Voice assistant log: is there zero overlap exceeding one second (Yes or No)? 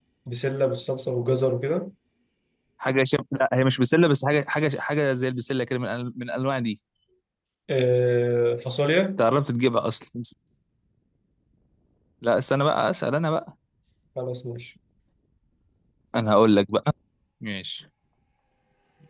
Yes